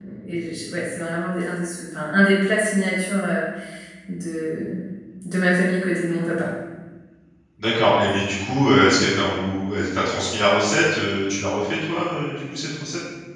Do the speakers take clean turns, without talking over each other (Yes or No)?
Yes